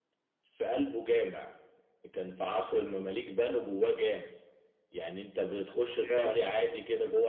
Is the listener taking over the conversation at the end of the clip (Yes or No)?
No